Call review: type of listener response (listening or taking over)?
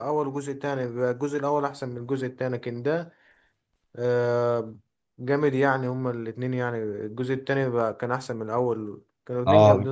taking over